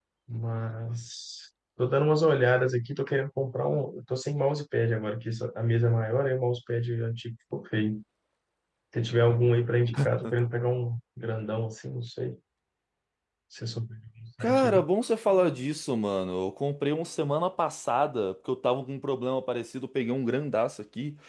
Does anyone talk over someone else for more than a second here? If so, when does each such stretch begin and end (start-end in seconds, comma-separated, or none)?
none